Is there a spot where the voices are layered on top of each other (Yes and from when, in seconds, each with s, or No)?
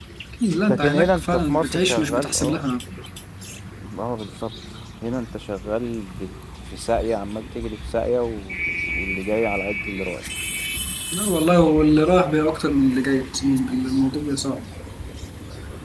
Yes, from 0.7 s